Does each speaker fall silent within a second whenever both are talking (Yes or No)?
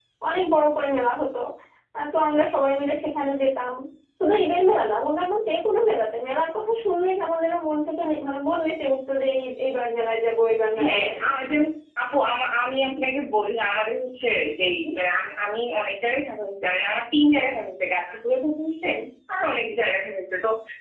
Yes